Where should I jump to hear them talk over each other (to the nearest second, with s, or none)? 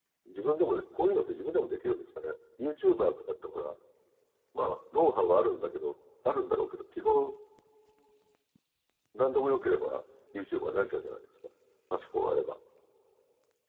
none